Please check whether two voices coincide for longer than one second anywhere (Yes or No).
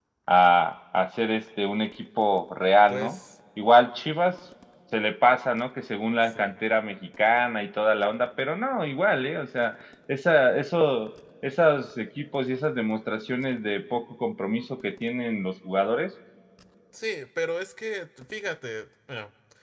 No